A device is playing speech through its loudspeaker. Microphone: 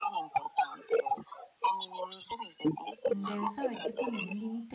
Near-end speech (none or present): present